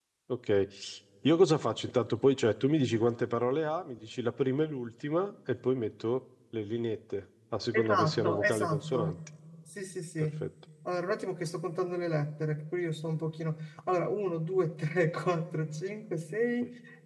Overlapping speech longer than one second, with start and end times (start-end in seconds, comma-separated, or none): 7.7-9.2